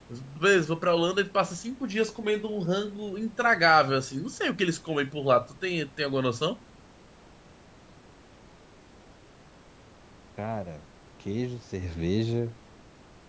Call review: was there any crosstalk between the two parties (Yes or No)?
No